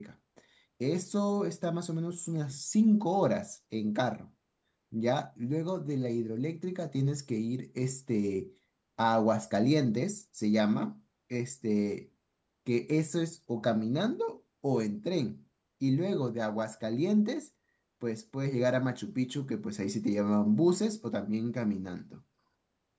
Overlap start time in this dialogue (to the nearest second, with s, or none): none